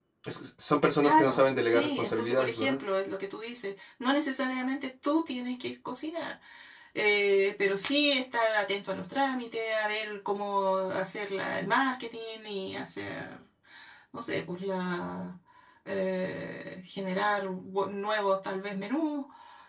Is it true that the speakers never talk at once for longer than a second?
No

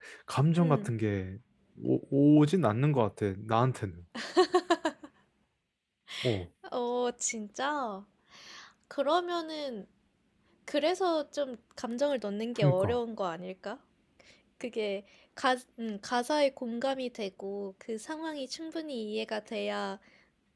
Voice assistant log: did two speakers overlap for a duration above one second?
No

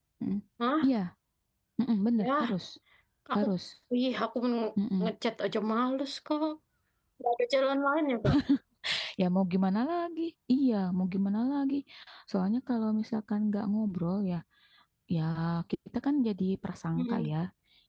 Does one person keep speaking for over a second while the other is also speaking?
No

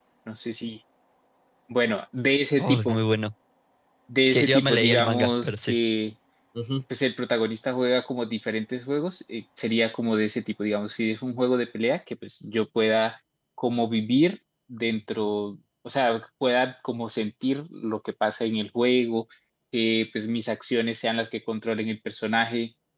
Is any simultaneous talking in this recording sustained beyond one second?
Yes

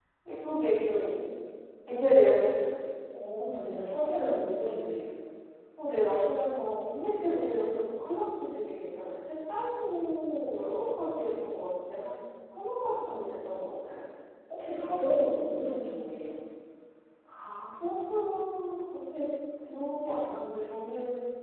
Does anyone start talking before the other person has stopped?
No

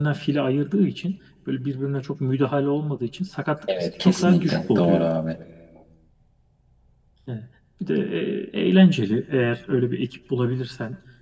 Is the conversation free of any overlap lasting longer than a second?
No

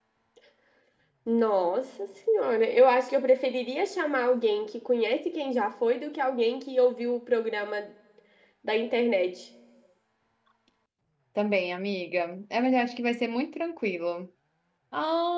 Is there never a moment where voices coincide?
Yes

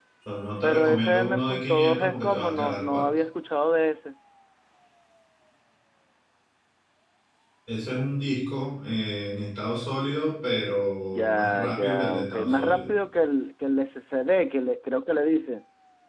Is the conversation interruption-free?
No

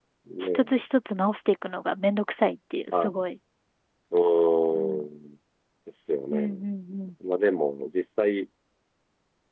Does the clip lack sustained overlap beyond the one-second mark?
Yes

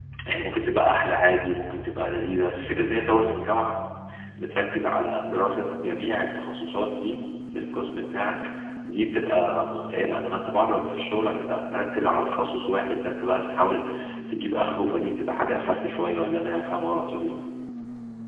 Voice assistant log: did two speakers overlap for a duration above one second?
No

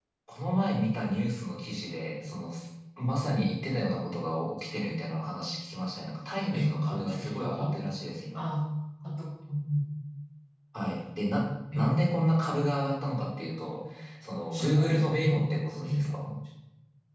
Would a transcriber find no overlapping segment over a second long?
No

